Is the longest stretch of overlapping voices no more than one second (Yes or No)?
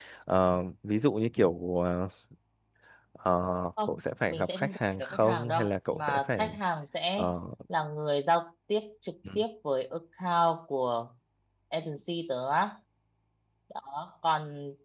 No